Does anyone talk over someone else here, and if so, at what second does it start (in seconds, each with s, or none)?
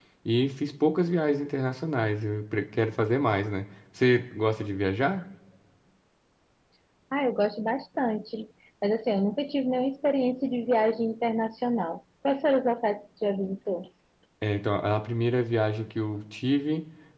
none